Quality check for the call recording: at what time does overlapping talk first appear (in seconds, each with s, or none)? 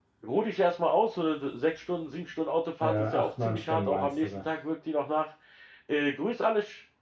2.8 s